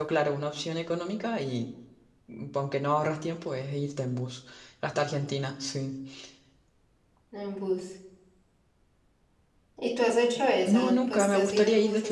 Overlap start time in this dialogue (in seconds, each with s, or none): 10.7 s